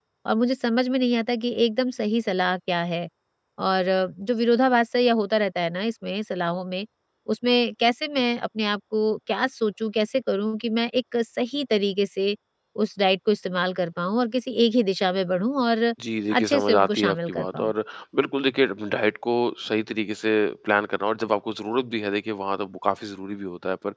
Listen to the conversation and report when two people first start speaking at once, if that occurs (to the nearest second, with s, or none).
16 s